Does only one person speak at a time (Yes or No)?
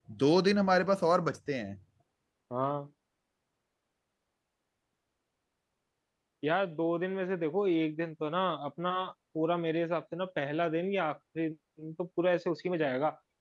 Yes